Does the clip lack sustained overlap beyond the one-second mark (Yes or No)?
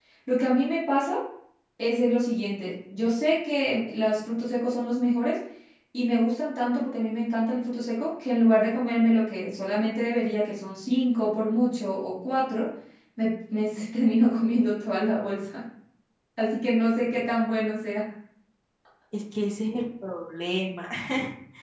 Yes